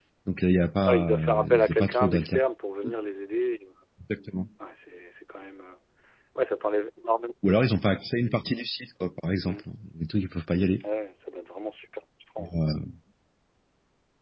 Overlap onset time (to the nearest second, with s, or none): 1 s